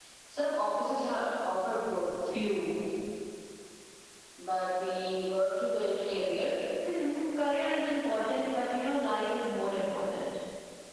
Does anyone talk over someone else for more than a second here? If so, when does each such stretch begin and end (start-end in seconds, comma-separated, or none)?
none